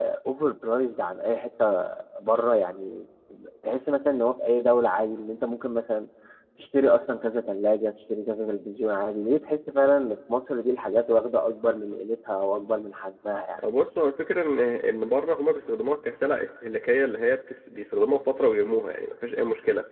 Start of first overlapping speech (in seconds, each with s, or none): none